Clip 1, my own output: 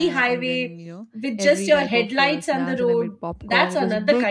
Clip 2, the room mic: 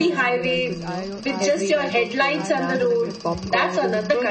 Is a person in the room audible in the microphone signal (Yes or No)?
Yes